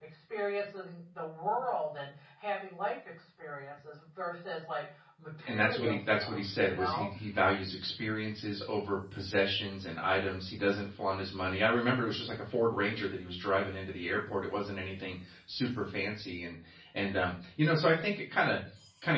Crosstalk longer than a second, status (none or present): present